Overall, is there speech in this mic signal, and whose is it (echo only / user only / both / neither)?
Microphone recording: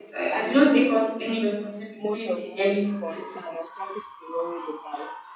both